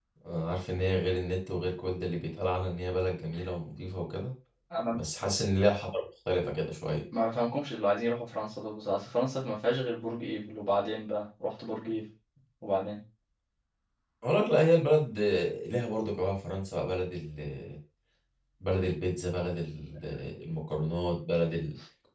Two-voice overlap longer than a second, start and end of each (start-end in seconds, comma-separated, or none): none